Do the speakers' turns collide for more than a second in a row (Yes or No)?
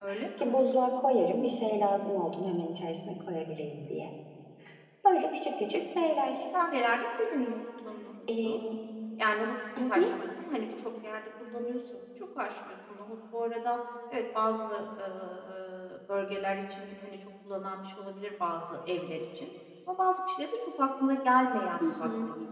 No